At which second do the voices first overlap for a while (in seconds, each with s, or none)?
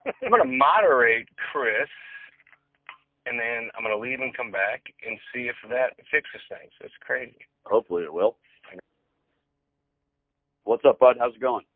none